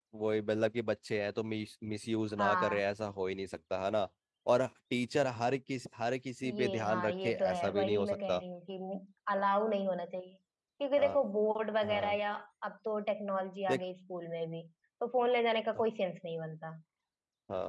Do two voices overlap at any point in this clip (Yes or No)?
Yes